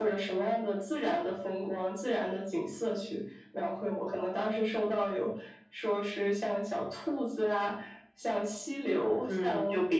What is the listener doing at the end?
taking over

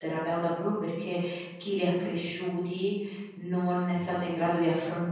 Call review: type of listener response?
listening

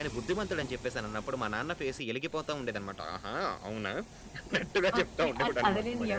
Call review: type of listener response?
taking over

